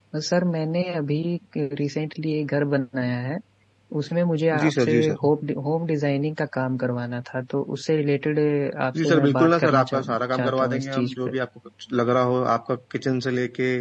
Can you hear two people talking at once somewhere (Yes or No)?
Yes